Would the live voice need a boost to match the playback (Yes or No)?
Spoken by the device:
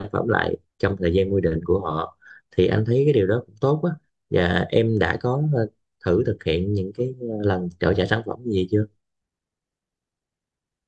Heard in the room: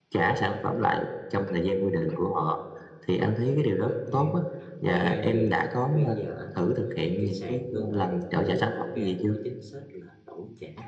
Yes